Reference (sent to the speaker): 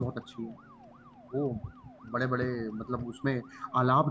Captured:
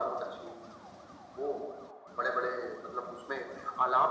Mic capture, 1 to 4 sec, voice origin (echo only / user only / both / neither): echo only